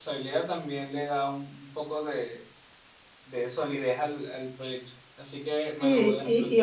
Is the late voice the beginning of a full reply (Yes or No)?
Yes